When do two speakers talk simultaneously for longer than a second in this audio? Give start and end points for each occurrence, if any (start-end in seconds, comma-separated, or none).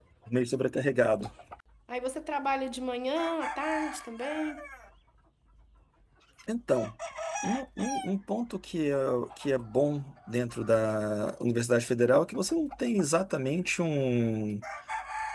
none